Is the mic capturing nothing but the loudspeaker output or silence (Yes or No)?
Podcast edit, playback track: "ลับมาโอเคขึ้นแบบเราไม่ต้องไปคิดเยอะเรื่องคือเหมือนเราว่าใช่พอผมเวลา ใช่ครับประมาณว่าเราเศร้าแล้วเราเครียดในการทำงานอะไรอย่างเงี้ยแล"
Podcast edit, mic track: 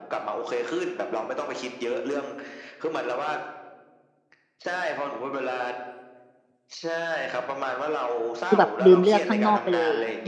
No